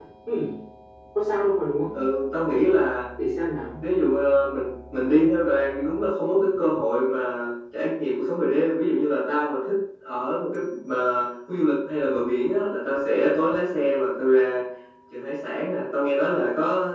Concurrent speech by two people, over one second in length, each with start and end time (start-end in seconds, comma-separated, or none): none